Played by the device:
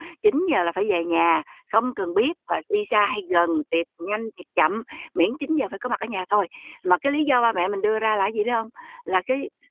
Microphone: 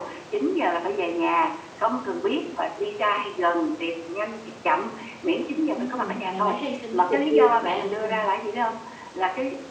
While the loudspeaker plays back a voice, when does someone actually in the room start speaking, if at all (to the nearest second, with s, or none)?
6 s